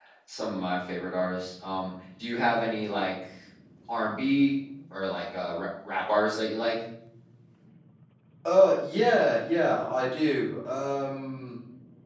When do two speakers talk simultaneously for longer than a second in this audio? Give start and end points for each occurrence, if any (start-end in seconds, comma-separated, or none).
none